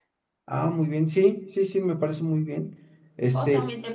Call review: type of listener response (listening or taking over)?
taking over